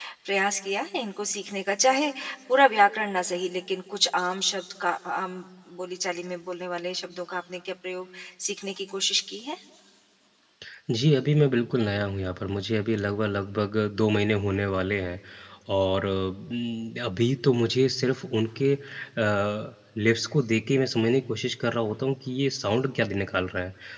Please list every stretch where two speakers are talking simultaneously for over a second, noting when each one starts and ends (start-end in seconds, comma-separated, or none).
none